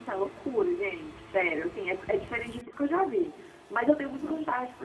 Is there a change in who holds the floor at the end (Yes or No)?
No